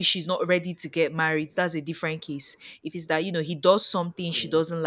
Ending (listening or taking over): listening